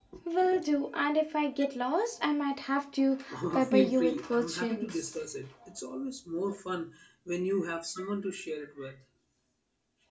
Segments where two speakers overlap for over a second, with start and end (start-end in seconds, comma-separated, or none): 3.7-5.0